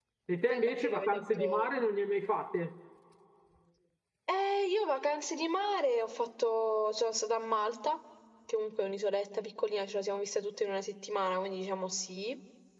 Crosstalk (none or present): present